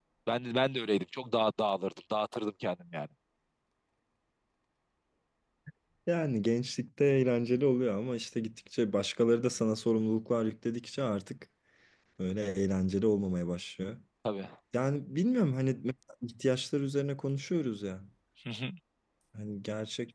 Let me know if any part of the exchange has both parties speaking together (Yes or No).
No